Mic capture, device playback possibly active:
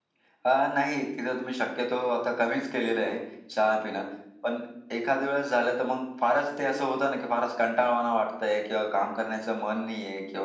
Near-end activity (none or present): none